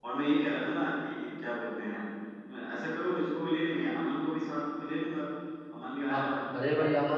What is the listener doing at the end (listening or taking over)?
taking over